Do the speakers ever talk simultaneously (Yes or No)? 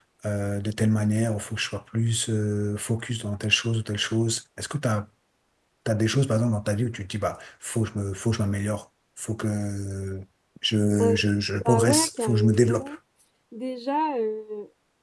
Yes